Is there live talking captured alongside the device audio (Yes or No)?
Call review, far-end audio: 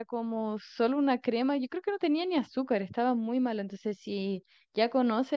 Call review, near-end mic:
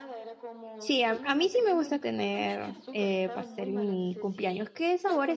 Yes